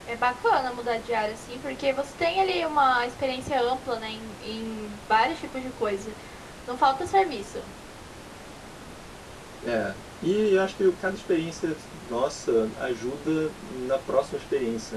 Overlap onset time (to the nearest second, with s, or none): none